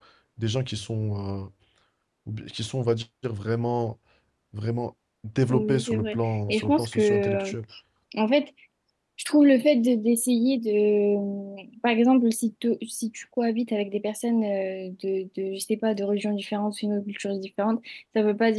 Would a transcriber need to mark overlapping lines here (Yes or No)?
Yes